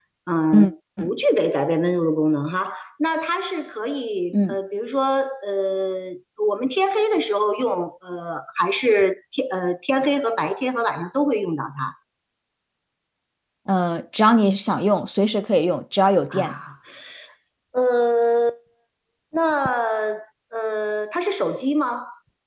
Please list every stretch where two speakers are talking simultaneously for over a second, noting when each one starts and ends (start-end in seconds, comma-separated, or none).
none